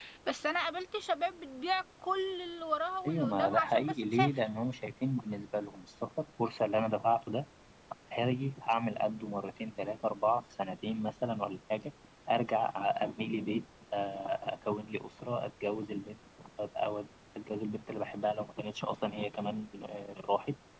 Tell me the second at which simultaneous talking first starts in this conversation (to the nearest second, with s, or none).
3 s